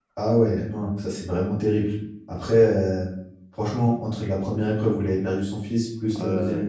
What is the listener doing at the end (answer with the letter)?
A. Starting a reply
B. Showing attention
B